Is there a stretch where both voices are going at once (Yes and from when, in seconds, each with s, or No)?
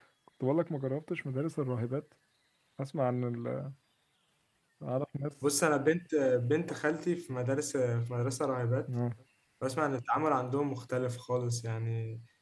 No